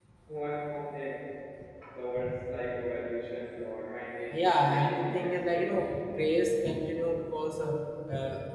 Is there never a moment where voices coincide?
No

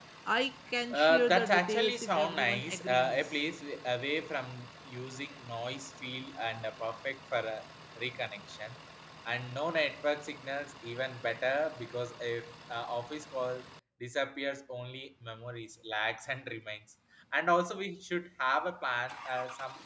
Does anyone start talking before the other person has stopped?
Yes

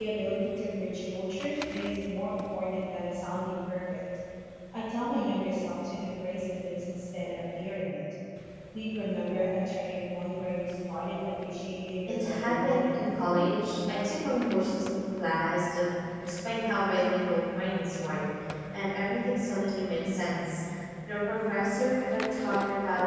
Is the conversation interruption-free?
No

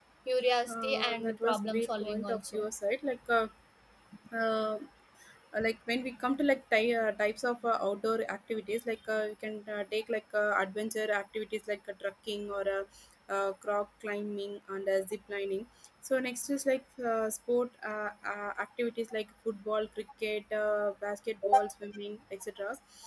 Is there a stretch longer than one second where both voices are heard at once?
Yes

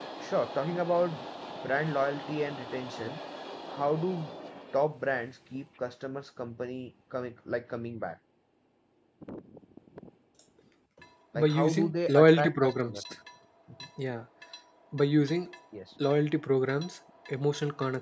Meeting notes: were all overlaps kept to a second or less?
No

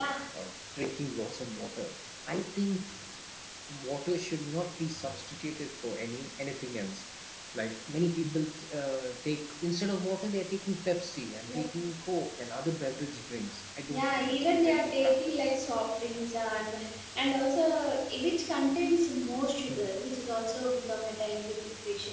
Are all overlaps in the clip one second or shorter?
No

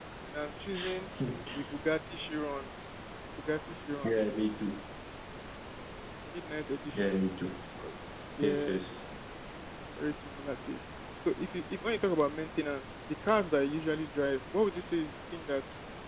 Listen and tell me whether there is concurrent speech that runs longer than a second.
No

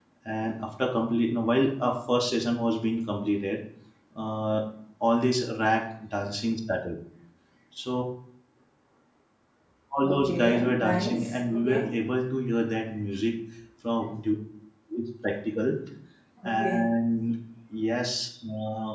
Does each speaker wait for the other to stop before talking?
No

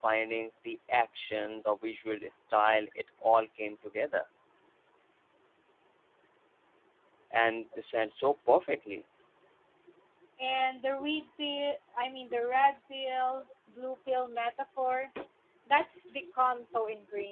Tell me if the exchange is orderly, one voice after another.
Yes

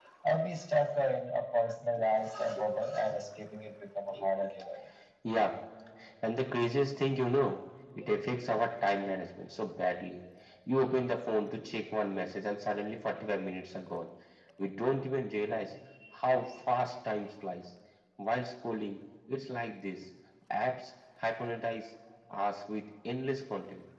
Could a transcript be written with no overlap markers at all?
Yes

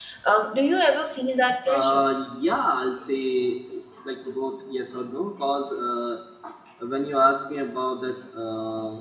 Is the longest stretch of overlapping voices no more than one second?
Yes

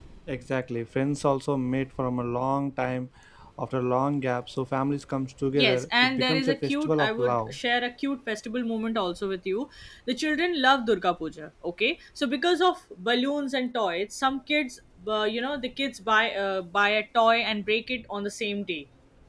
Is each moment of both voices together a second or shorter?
No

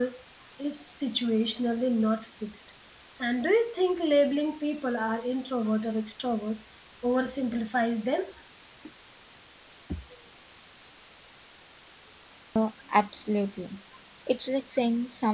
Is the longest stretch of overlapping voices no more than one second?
Yes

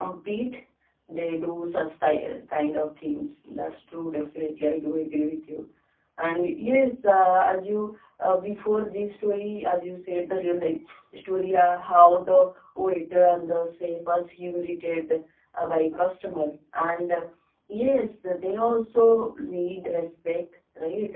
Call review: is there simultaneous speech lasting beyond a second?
No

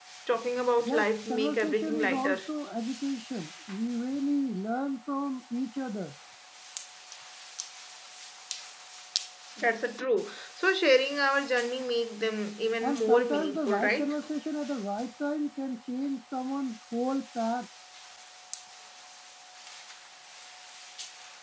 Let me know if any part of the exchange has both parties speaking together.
Yes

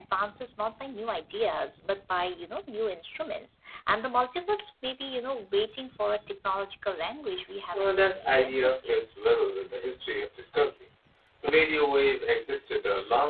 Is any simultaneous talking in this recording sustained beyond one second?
Yes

